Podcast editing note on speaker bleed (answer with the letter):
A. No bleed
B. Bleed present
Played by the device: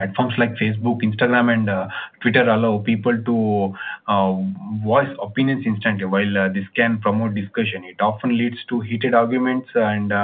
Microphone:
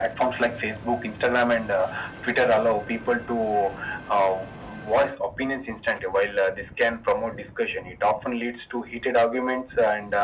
B